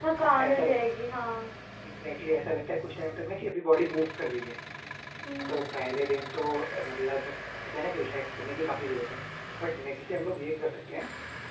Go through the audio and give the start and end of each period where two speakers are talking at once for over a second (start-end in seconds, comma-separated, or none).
none